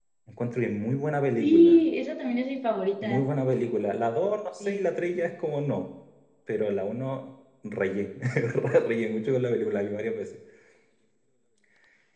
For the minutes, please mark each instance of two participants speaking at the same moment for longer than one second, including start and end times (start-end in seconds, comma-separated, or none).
none